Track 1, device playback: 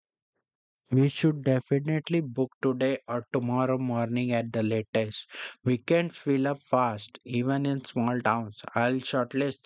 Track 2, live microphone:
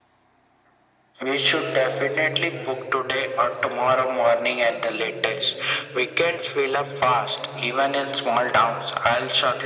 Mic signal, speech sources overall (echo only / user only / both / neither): both